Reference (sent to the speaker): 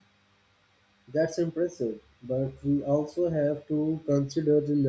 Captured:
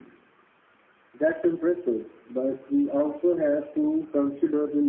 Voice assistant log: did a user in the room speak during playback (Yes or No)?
No